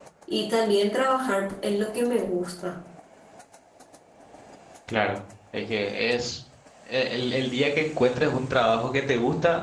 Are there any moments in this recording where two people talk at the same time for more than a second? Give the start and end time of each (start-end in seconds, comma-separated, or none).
none